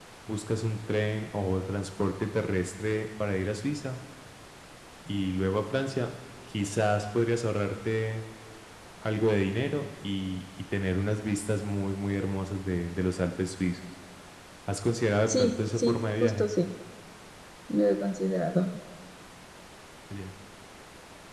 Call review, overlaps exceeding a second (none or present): present